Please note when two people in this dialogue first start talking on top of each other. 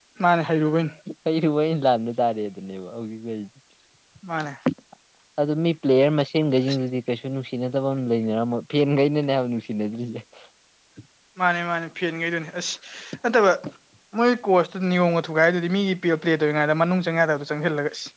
none

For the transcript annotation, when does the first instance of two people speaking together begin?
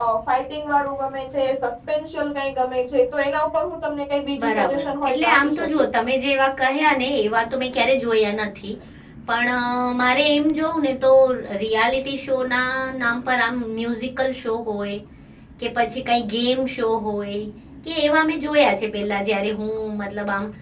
4 s

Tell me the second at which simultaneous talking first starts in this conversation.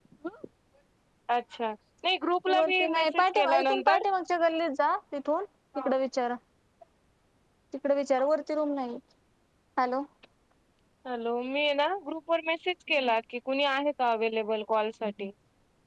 2 s

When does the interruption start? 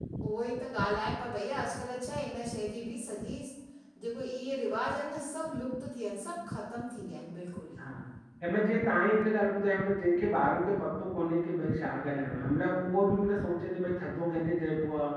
none

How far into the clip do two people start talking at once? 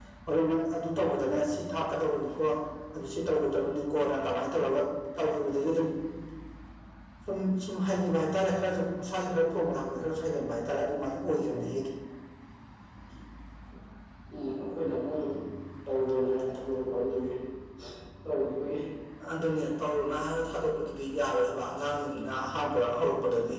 none

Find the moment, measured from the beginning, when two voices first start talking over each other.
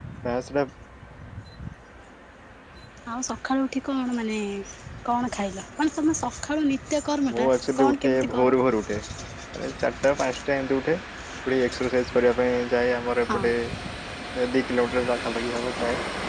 7 s

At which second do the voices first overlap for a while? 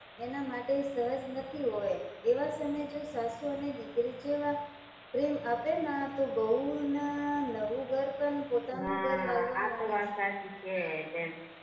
9 s

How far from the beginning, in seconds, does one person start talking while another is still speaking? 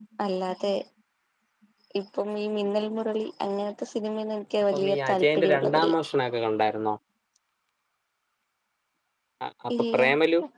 5 s

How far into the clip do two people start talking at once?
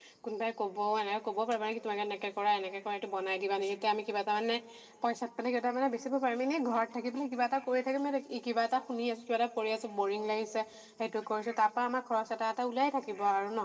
none

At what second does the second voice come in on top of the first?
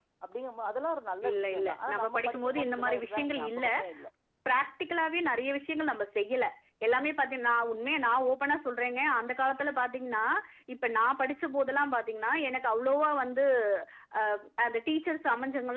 1 s

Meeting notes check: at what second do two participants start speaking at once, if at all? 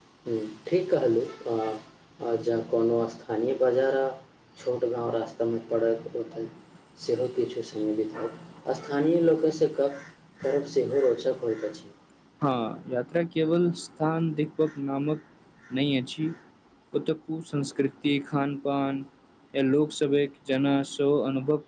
none

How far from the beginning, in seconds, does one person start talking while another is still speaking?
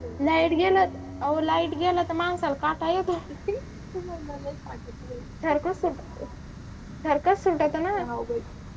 none

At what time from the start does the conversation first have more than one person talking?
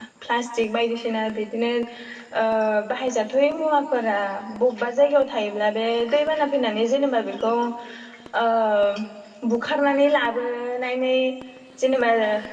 none

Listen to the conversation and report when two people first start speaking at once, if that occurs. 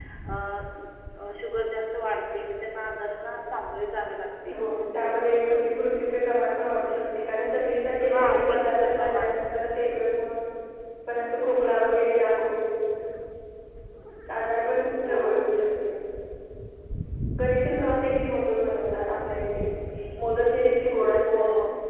8 s

